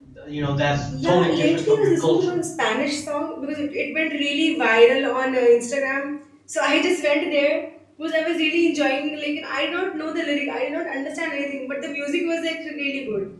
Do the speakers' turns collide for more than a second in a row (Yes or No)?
Yes